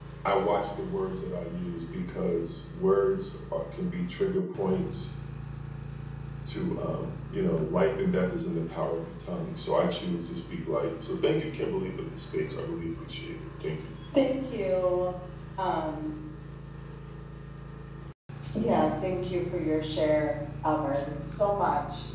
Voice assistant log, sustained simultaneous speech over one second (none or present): none